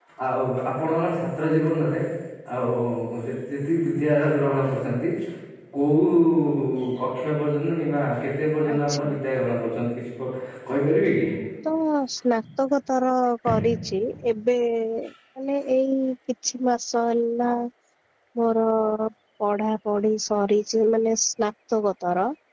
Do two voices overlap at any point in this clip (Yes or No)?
No